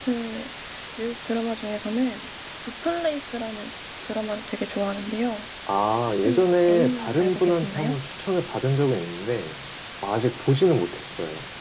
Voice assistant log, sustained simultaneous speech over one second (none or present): present